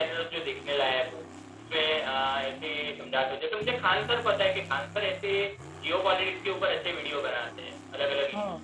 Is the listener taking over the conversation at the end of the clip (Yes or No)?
Yes